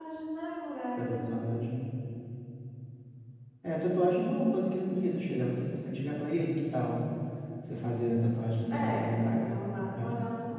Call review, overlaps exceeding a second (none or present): present